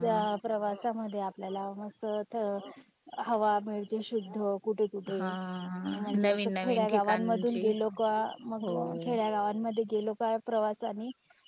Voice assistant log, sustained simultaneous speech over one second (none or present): present